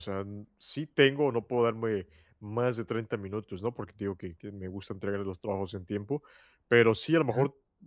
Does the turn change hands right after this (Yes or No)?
No